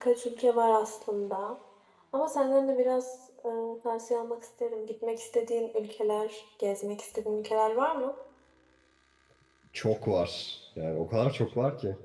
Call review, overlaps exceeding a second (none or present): none